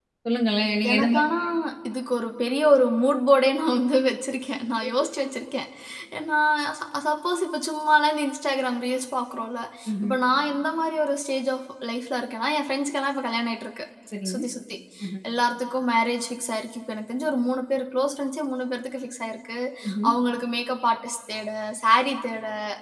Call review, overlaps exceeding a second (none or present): none